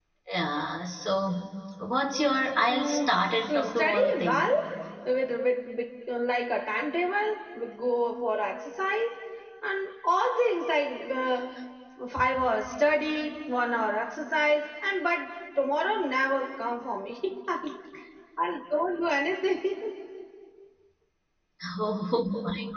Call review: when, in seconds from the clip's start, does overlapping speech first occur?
2.7 s

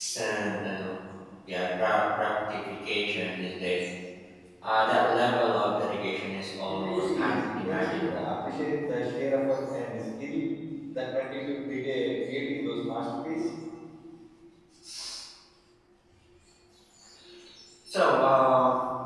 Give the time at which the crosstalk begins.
6.7 s

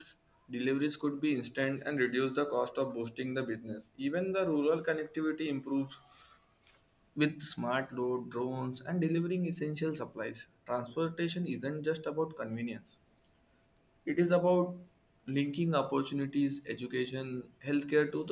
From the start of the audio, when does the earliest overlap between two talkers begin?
none

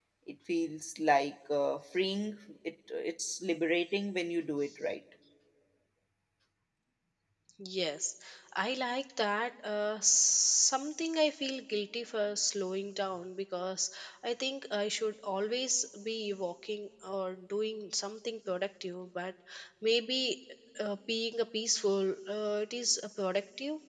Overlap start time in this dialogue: none

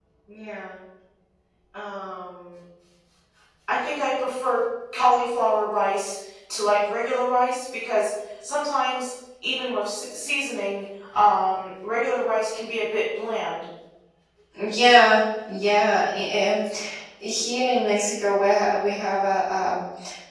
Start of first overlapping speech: none

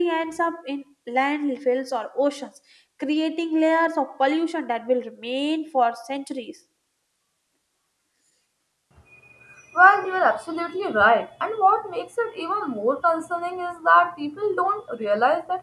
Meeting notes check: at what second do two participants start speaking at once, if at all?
none

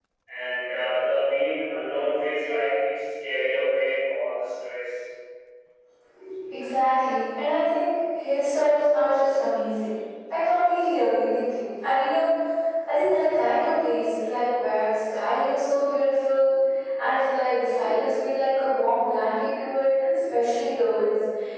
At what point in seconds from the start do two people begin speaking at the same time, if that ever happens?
none

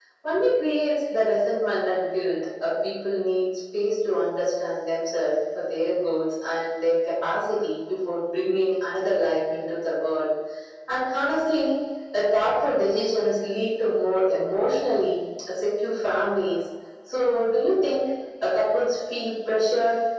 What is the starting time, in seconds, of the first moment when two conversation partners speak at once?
none

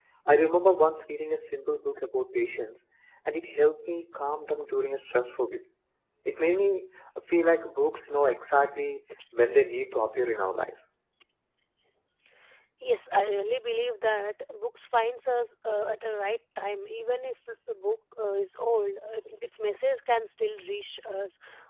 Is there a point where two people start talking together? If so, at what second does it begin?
none

